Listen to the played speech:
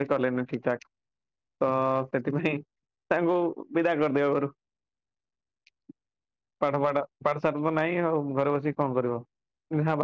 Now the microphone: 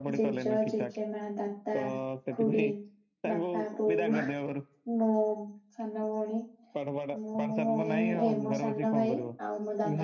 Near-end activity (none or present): present